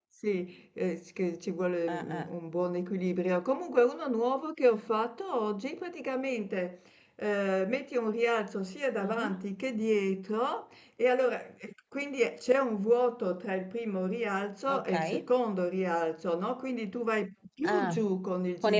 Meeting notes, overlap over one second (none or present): none